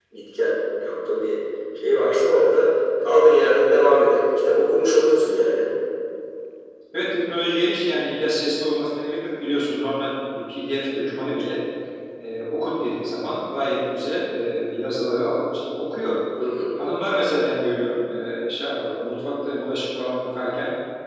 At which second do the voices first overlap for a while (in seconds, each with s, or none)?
none